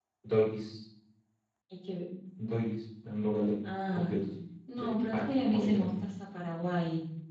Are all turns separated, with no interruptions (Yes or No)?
No